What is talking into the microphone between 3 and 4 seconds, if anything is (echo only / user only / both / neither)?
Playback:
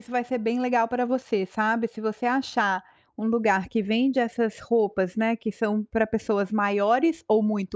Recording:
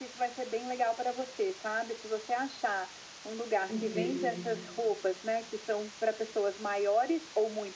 both